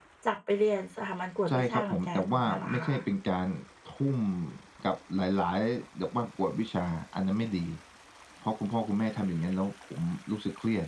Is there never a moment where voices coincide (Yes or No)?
No